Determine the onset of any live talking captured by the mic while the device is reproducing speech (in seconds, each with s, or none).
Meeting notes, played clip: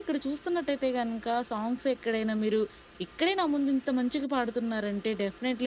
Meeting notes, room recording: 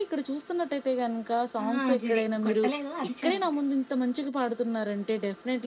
1.6 s